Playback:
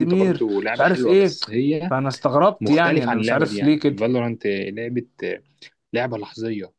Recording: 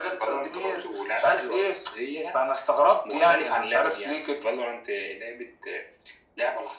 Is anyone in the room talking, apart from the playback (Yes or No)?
No